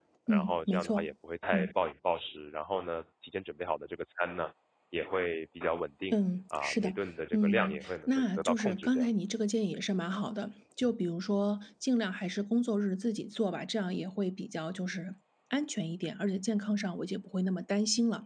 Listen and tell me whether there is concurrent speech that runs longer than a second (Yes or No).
Yes